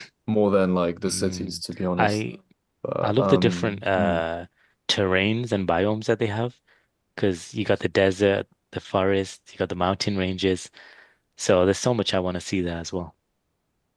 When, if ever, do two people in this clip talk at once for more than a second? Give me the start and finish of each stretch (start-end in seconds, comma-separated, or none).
3.0-4.2